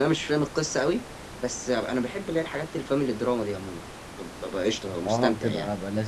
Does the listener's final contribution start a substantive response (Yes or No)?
Yes